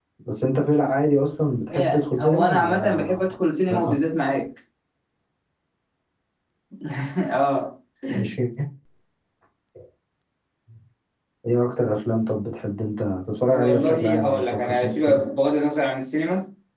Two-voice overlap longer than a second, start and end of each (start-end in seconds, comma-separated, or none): 1.7-3.3, 13.5-15.2